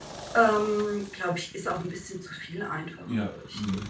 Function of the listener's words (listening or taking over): taking over